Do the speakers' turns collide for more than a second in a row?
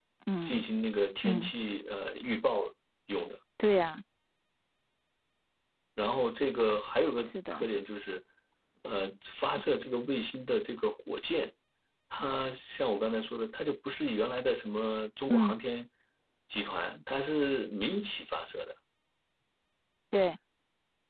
No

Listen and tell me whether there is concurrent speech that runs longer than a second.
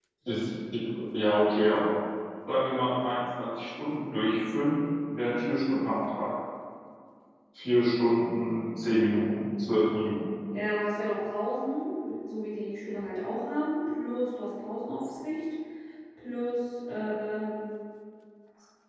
No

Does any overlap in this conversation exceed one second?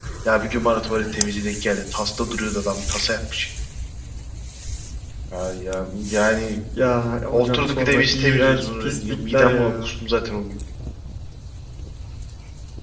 Yes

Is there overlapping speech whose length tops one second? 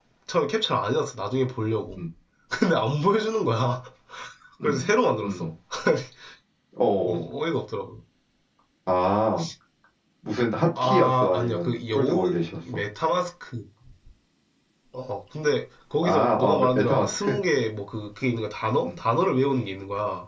Yes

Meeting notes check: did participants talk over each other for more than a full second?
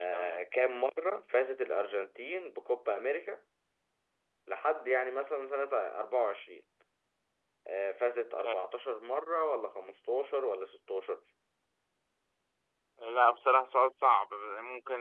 No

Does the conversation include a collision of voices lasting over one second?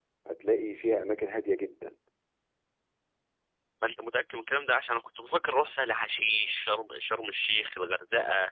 No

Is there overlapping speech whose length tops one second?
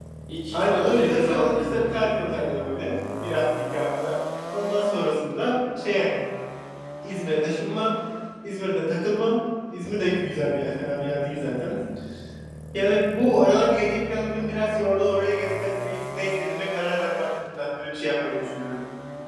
Yes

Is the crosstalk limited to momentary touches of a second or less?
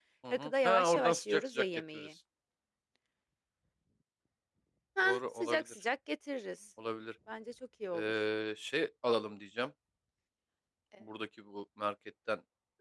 No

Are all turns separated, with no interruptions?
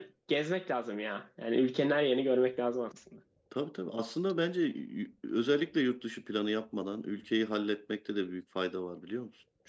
Yes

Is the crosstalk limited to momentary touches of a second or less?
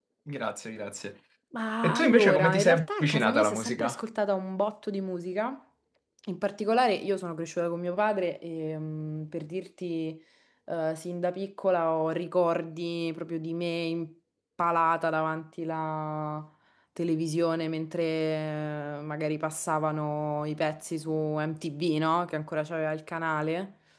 No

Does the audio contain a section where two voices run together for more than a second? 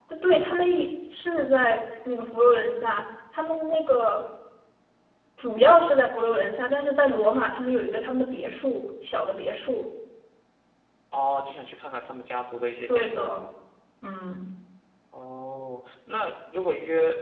No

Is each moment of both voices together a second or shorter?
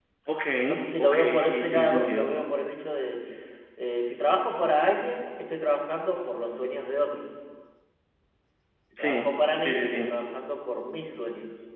No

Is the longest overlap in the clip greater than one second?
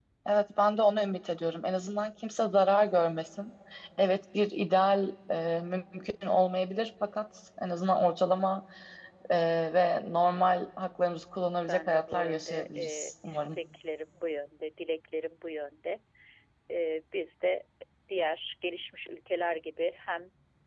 Yes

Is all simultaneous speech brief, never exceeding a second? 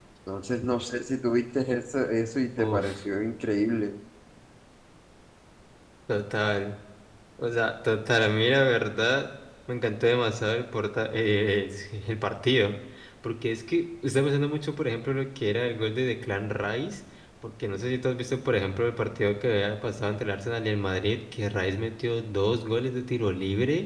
Yes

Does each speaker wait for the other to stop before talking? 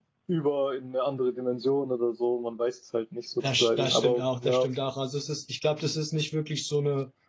No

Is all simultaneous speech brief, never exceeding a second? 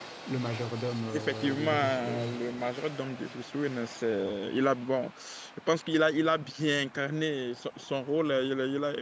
No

